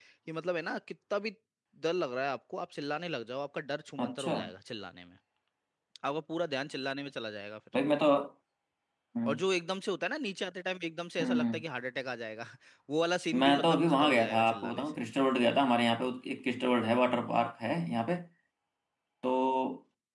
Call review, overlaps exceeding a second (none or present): present